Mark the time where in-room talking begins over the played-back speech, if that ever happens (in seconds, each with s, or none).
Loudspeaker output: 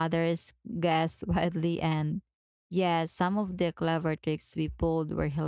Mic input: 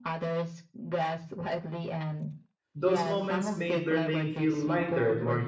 2.7 s